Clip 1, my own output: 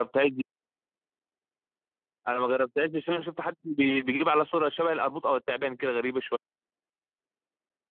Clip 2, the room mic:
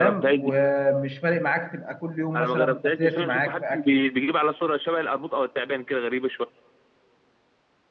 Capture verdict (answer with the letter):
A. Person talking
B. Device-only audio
A